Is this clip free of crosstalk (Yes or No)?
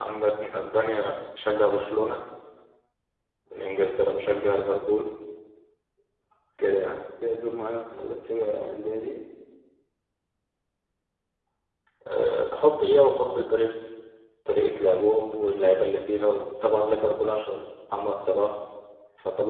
Yes